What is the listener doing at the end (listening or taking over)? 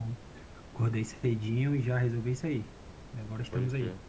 taking over